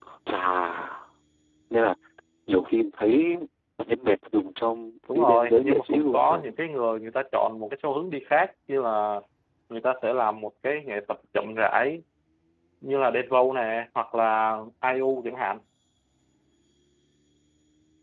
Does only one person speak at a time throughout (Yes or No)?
No